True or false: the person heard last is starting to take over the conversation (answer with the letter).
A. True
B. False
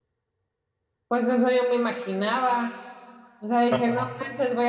B